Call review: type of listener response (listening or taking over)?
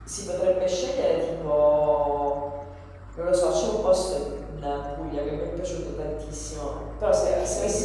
listening